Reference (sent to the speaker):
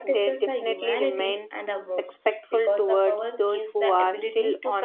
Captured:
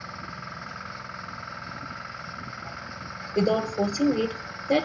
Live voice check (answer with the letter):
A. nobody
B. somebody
B